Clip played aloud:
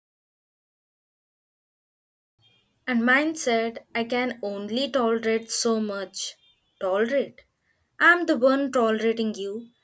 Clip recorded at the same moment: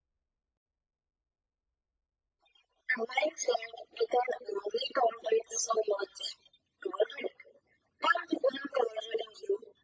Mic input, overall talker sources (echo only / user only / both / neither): echo only